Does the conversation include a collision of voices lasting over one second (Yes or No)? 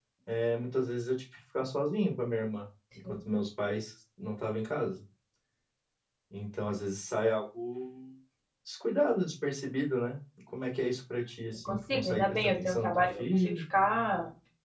Yes